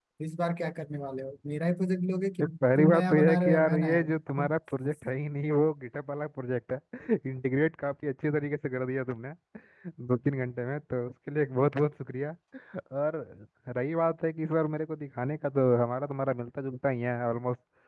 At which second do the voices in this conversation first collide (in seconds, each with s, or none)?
2.4 s